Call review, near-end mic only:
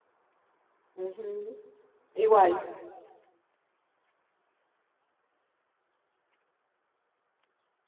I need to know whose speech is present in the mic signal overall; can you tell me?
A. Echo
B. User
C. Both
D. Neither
B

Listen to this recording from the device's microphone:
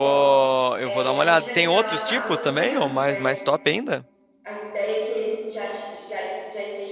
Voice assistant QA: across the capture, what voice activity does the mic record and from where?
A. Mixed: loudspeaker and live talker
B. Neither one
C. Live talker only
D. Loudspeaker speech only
A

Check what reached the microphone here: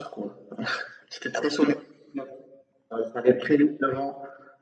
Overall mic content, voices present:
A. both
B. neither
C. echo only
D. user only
C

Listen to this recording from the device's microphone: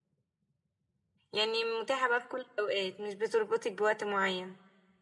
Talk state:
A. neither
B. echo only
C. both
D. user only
D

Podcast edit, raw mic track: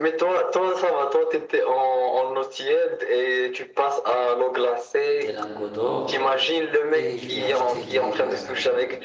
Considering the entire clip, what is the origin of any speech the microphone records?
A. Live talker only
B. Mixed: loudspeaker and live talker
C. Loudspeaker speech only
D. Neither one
B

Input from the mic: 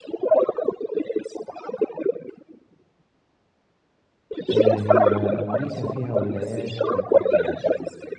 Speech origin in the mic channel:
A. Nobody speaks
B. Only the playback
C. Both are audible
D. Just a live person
C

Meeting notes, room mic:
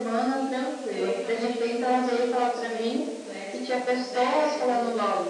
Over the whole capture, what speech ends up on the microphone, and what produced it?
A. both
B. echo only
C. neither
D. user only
A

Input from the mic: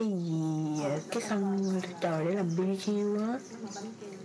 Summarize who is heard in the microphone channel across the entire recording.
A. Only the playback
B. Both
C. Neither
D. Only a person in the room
B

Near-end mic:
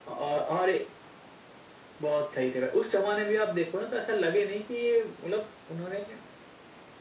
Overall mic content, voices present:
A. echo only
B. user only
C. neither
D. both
A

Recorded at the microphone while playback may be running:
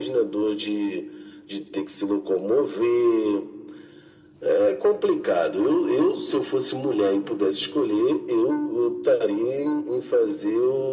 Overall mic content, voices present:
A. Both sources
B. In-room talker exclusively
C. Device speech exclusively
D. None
C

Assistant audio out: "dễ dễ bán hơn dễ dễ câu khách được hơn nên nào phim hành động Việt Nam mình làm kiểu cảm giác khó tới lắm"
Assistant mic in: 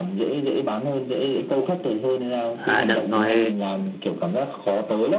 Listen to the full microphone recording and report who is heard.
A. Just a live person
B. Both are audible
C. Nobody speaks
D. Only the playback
B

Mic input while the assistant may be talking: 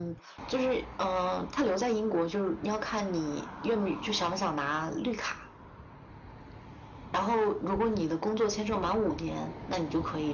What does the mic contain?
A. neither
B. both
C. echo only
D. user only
C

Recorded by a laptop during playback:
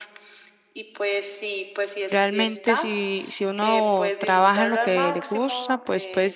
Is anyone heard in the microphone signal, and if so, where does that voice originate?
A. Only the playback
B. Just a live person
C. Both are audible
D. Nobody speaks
C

